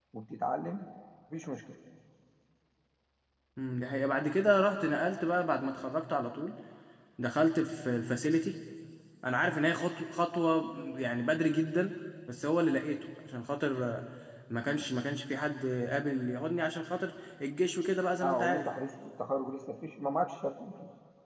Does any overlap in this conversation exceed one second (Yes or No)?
No